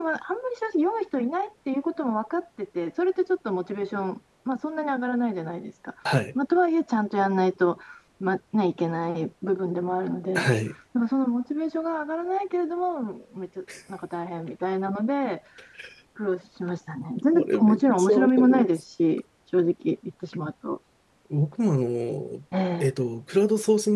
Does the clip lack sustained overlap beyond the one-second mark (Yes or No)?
No